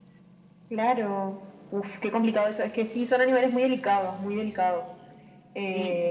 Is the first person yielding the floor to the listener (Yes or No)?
Yes